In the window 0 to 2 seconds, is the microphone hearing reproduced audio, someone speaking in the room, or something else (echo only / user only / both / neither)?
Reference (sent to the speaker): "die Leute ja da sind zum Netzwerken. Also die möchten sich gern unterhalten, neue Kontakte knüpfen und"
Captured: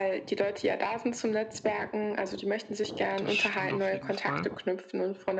echo only